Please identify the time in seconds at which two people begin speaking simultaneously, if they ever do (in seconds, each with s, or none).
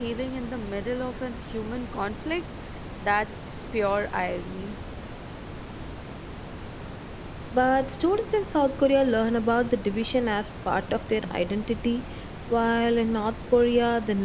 none